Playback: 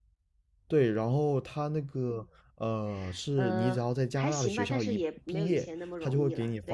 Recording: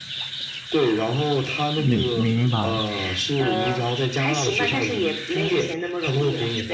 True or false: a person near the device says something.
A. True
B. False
A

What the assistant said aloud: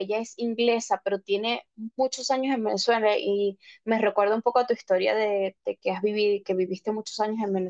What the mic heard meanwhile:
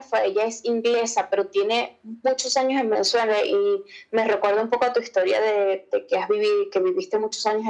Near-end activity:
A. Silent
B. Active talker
A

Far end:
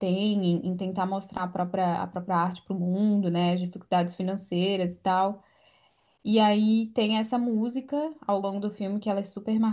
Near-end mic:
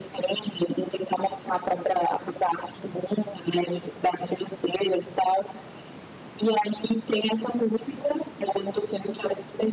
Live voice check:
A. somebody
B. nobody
B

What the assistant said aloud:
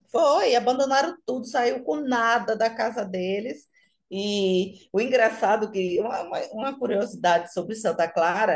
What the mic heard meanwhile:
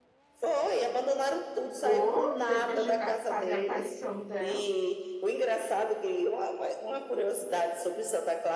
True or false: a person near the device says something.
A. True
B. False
A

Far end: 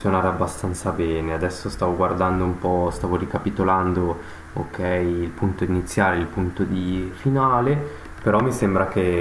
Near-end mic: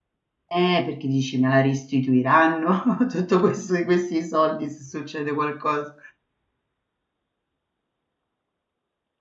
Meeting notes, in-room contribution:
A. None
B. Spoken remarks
B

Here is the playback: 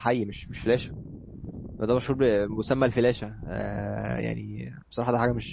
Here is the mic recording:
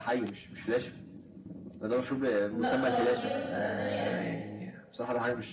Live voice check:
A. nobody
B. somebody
B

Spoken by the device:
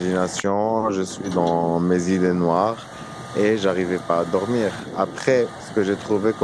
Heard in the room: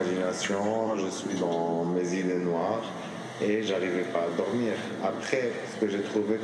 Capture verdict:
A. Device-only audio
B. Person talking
A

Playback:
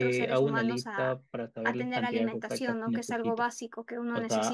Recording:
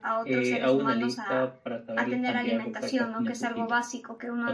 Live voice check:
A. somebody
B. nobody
B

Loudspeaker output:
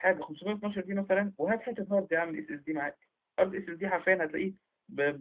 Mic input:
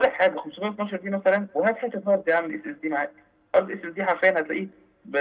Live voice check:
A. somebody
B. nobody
B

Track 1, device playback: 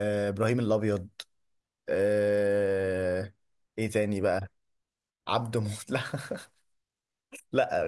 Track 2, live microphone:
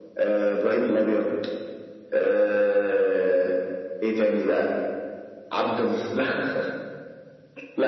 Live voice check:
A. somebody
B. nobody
B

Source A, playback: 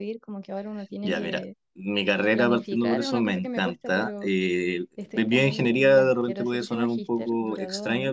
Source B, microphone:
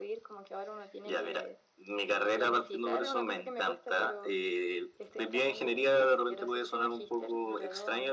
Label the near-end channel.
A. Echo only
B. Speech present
A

